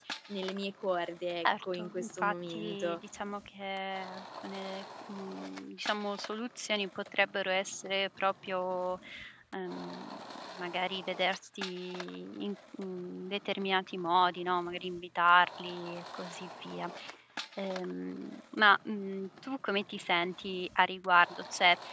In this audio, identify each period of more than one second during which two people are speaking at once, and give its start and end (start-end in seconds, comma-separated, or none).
1.4-3.0